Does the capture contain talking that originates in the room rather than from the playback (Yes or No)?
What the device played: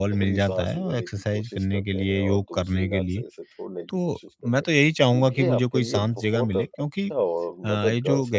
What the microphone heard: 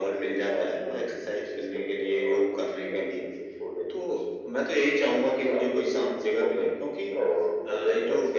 No